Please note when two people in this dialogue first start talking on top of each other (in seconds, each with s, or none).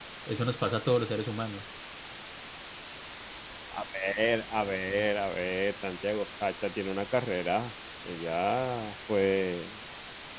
none